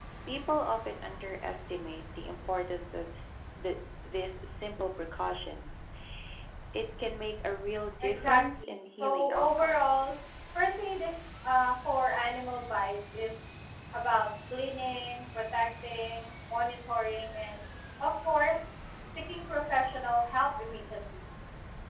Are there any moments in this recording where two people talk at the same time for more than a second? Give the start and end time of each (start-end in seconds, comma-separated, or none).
8.0-9.9